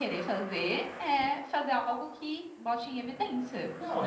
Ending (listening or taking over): taking over